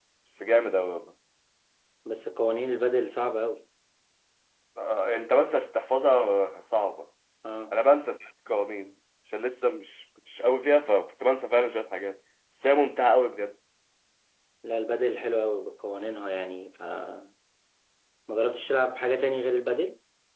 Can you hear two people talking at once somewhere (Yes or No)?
No